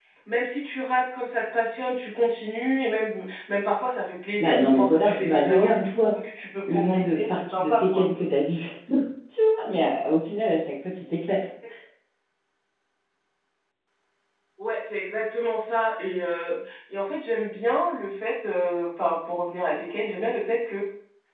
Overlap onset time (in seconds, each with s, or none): 4.4 s